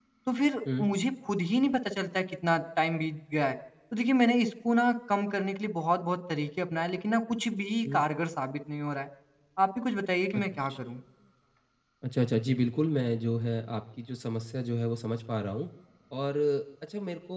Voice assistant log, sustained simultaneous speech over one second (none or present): none